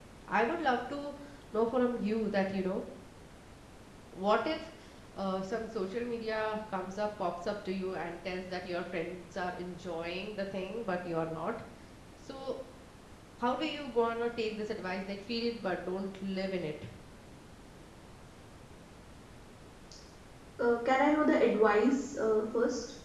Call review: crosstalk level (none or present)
none